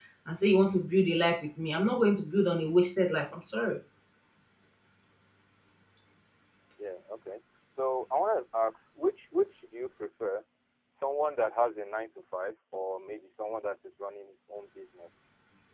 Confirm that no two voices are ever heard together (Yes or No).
Yes